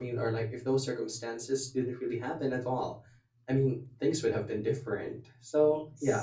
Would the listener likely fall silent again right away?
Yes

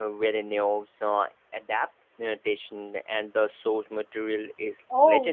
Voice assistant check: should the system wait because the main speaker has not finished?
No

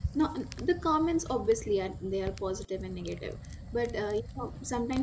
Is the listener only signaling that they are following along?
Yes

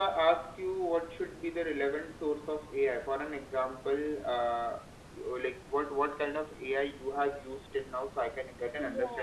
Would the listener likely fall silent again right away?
No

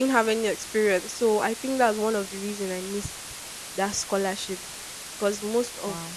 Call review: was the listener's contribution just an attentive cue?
Yes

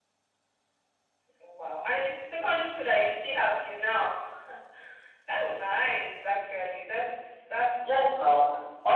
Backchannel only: No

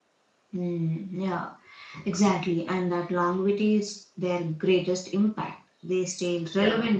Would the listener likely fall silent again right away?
Yes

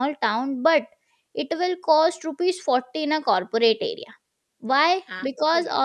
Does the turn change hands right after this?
No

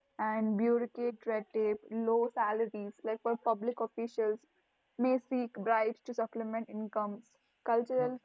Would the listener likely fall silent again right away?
Yes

